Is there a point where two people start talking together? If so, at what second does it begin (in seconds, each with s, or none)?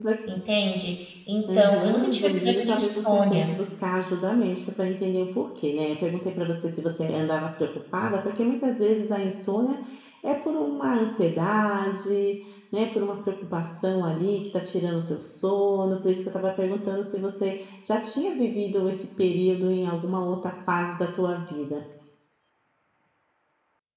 1.5 s